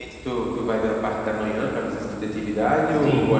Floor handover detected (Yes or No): Yes